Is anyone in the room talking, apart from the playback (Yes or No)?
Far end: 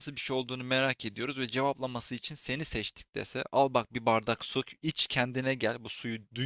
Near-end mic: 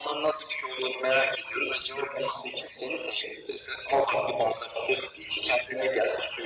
No